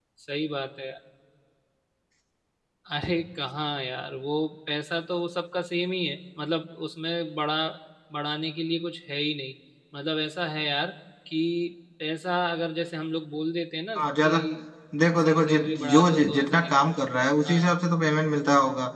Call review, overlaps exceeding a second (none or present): present